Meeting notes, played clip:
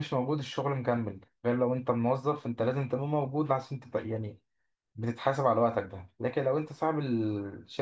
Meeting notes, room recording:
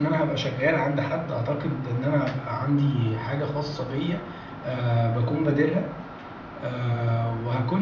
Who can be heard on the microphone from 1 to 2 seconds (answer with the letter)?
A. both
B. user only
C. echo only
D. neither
B